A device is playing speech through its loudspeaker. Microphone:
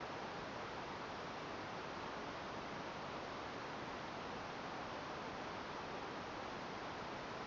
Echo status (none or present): none